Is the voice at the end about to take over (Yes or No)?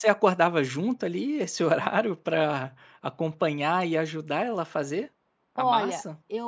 Yes